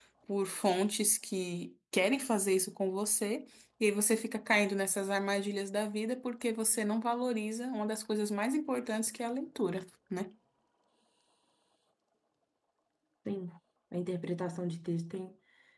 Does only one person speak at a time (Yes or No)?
Yes